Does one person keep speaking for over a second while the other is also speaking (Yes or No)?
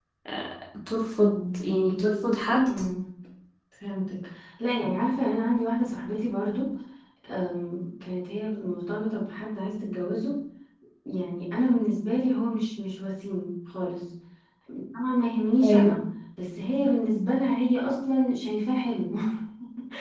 No